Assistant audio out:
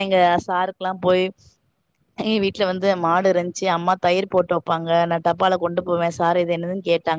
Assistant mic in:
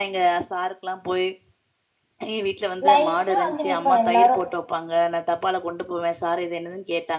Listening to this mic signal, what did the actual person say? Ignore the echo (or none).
லைனா வங்க நிப்போ எல்லாரு